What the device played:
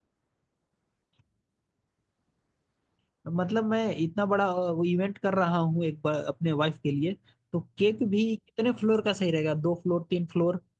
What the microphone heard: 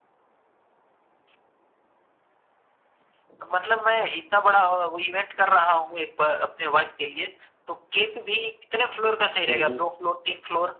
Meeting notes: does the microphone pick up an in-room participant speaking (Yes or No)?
Yes